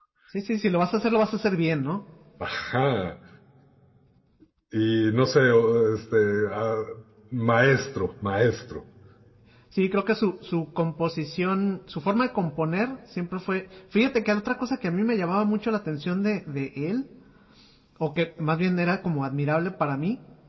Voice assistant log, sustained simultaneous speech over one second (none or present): none